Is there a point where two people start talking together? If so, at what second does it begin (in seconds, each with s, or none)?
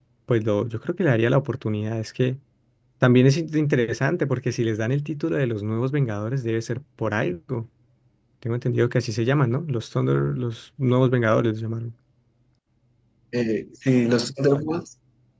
none